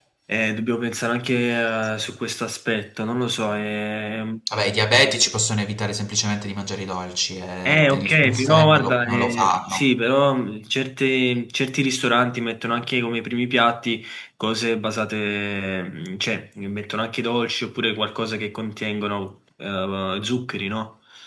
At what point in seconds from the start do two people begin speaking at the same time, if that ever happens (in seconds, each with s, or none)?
7.6 s